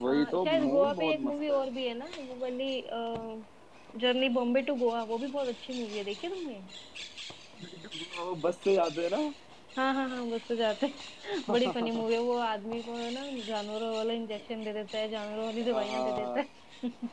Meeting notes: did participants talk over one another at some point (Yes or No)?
Yes